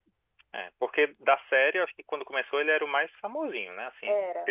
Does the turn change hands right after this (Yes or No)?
No